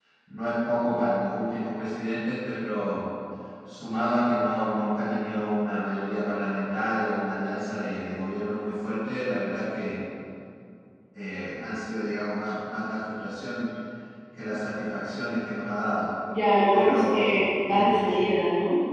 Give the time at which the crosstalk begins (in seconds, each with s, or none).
16.7 s